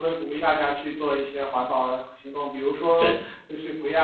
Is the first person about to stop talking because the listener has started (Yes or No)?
No